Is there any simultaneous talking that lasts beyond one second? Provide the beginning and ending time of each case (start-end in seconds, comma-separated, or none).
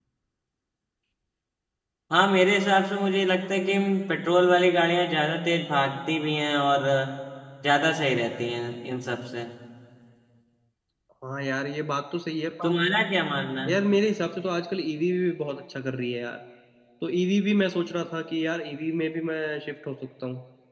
none